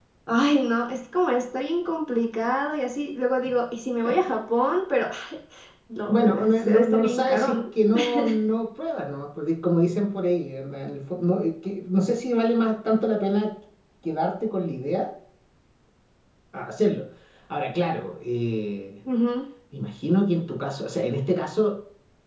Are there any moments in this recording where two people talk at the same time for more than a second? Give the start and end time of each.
6.1-7.6

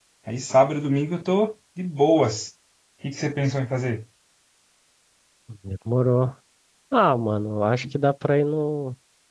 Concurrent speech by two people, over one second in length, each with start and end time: none

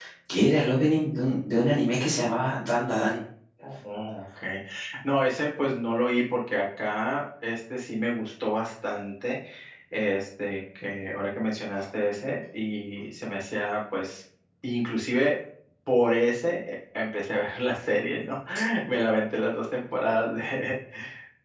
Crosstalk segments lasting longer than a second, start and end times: none

